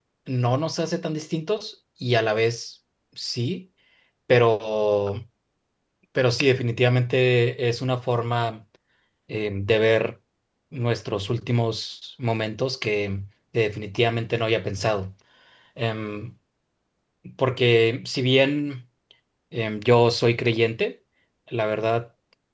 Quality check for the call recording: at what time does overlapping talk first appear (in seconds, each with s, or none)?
none